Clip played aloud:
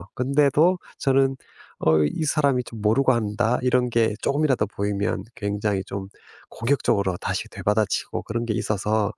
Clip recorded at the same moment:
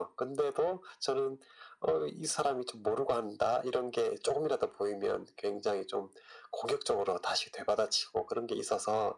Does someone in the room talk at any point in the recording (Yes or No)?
No